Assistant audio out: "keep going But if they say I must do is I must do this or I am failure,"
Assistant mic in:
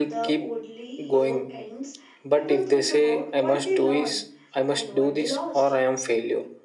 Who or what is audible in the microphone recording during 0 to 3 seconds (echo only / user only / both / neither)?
both